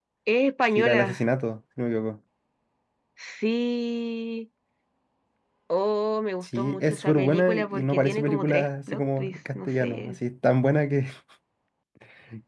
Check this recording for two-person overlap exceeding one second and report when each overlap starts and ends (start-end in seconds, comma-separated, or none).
6.5-10.2